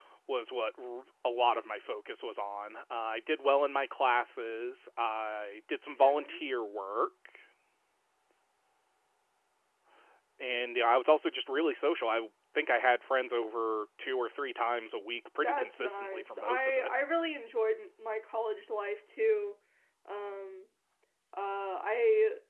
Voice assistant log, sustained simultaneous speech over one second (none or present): present